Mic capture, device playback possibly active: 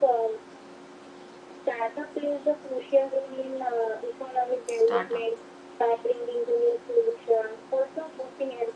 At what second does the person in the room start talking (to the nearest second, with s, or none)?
5 s